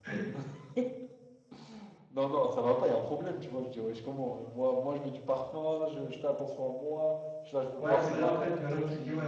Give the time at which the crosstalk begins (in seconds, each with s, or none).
7.8 s